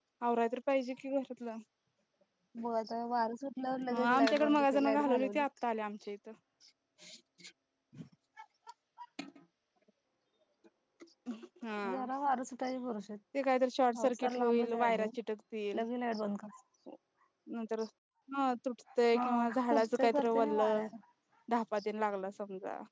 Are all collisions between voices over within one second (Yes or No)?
No